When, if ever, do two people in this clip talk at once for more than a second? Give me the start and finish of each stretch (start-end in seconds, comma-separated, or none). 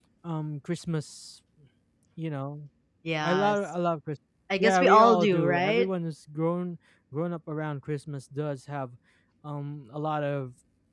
4.6-5.9